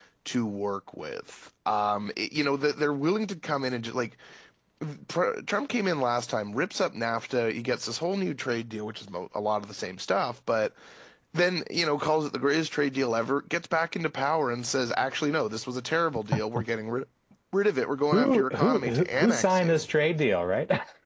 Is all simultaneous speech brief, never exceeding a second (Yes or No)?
No